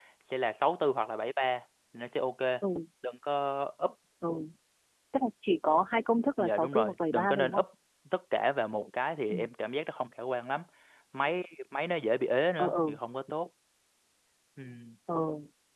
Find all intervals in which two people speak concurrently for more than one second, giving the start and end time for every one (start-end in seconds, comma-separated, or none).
6.4-7.6